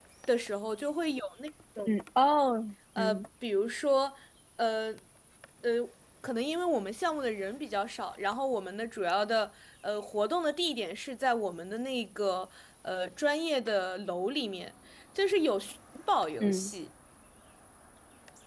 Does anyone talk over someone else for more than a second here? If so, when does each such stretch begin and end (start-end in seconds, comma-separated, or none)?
none